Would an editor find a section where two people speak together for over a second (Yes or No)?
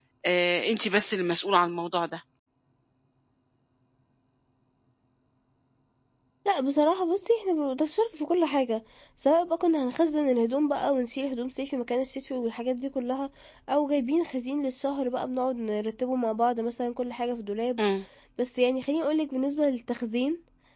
No